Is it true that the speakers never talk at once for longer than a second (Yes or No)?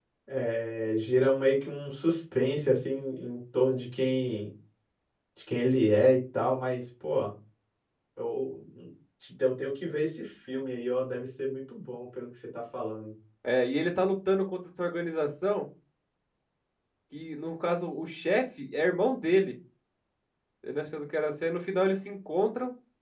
Yes